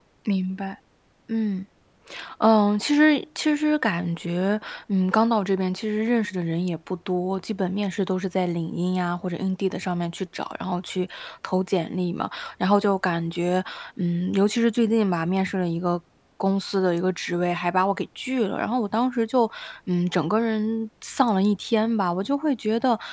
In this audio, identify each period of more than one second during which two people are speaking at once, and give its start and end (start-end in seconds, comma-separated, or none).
none